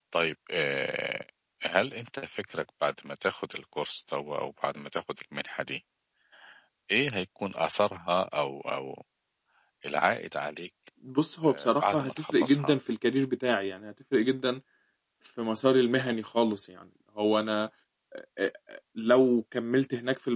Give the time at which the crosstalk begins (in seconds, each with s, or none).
11.4 s